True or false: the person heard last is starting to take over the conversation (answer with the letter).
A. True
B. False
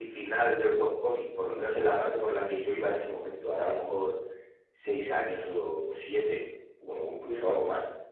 B